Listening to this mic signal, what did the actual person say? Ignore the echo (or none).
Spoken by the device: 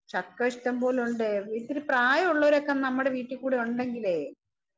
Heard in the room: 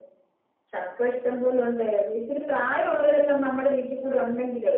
none